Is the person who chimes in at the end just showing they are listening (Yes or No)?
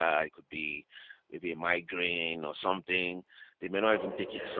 Yes